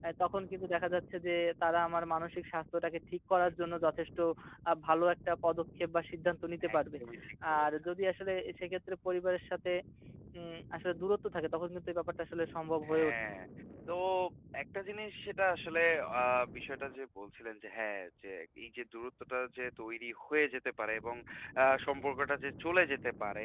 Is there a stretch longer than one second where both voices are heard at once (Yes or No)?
No